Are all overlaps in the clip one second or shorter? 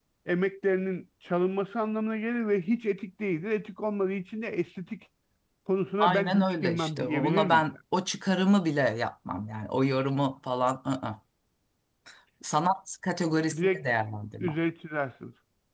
No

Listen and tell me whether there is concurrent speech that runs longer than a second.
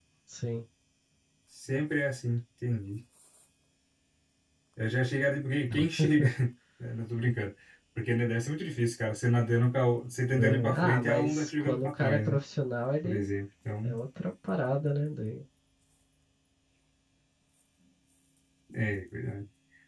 Yes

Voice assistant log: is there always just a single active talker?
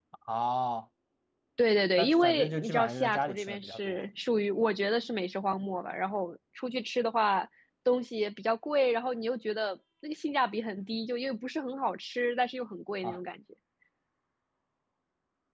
No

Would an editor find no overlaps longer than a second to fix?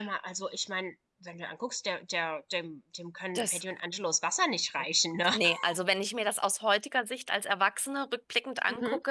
Yes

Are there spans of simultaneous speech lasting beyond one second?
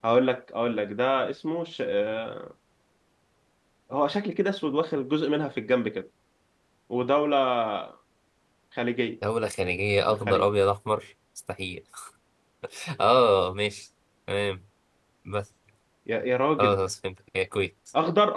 No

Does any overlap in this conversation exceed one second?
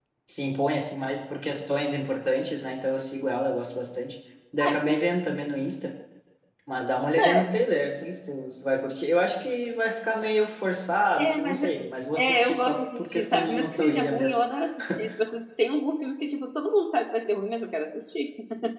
Yes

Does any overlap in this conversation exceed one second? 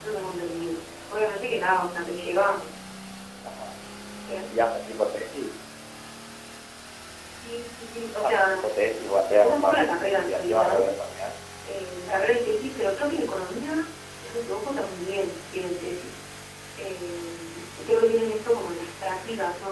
Yes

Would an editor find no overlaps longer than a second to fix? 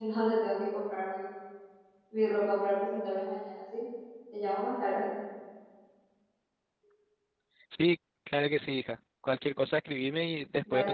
Yes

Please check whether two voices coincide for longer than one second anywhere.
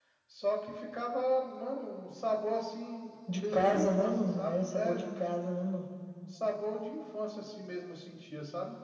Yes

